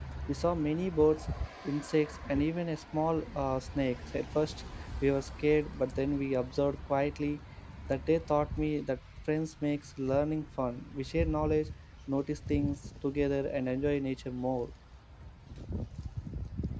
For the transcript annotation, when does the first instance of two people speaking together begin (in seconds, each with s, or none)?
none